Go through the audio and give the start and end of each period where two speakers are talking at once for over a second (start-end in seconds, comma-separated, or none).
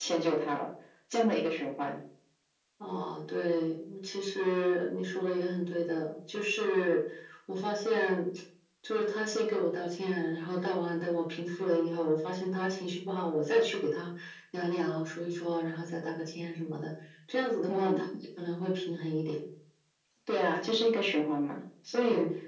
none